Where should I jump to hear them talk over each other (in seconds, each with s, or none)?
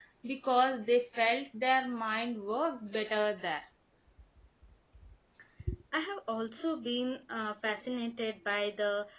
none